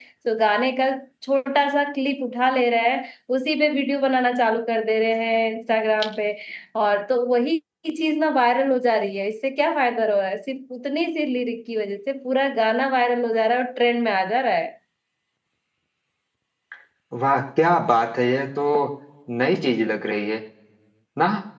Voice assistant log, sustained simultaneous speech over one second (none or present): none